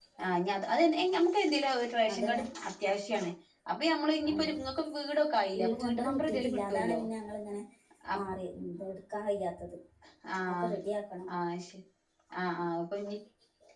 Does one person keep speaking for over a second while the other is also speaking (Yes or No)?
Yes